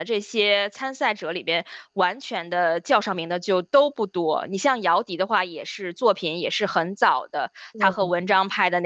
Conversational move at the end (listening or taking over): listening